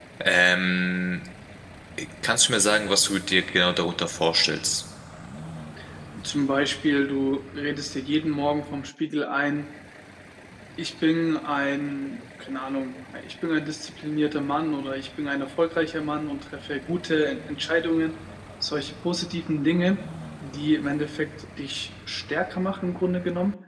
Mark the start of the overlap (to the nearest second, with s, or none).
none